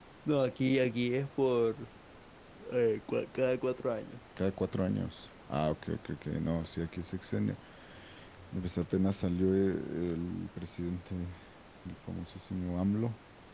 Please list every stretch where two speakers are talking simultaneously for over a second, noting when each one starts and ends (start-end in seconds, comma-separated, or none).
none